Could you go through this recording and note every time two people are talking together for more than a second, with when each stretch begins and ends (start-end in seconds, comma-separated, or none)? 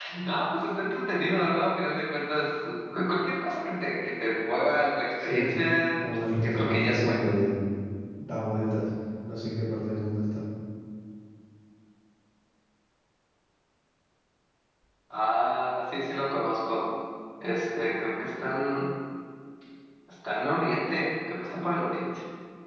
6.0-7.3